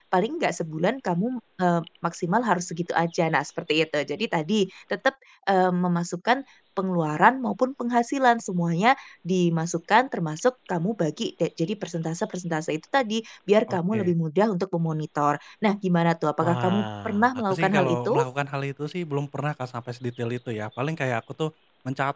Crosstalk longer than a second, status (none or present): present